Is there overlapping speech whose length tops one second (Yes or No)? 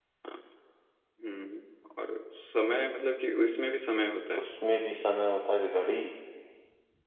No